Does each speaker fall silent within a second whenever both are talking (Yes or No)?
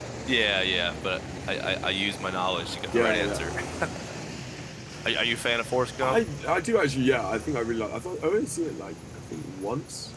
Yes